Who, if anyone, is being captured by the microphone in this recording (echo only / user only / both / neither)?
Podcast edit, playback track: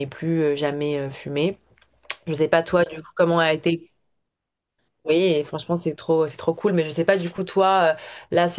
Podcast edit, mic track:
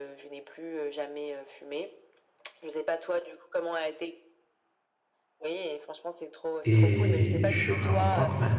both